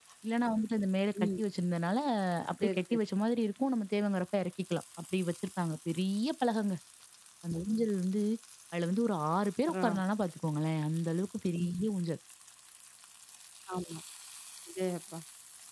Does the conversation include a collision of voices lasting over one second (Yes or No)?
No